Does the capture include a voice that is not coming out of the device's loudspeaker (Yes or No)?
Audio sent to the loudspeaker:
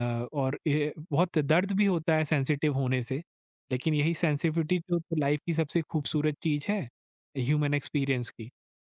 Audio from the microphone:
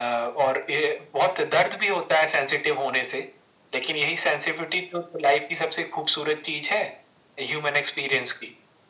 No